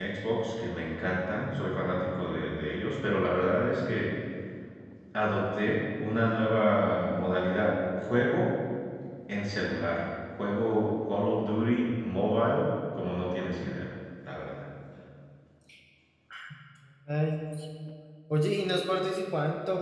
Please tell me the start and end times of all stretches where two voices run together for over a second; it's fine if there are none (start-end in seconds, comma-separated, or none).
none